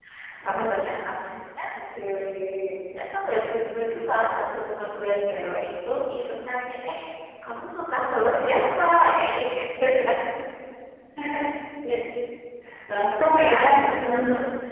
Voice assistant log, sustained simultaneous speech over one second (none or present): present